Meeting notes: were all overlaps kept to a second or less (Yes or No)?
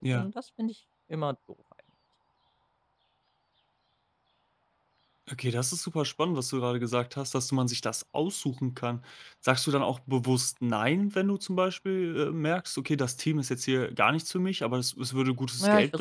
Yes